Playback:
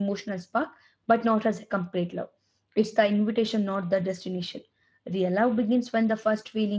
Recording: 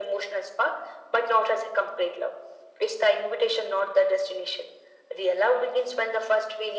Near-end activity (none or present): none